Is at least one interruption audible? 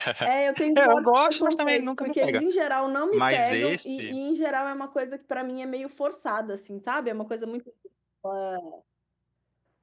Yes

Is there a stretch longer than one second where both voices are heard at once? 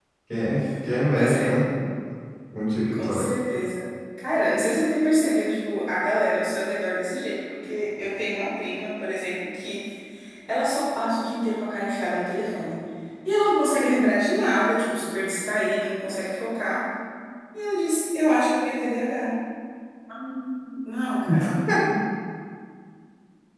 No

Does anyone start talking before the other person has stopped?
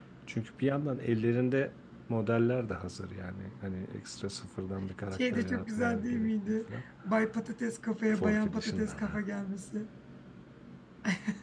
Yes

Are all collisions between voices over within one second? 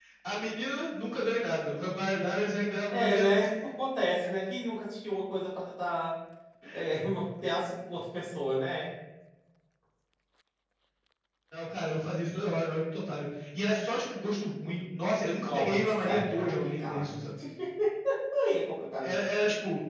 No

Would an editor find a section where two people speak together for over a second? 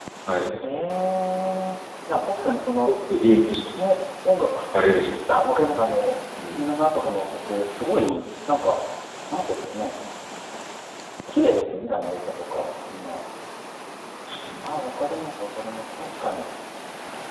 No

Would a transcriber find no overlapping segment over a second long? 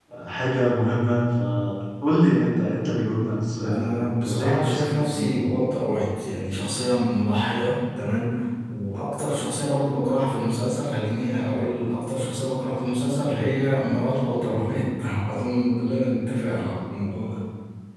No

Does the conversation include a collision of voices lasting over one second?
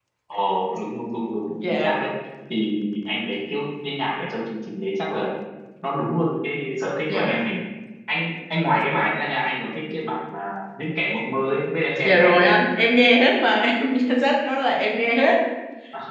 No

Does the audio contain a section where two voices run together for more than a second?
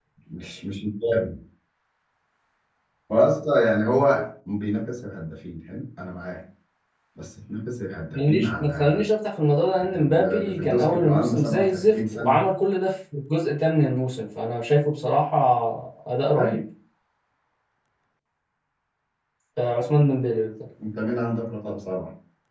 Yes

